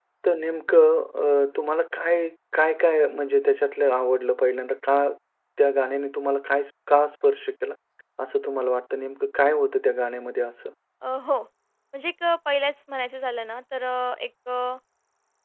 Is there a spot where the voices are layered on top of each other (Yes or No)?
No